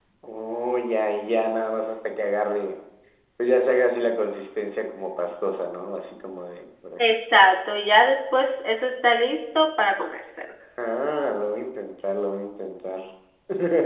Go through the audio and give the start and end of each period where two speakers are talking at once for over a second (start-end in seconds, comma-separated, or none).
none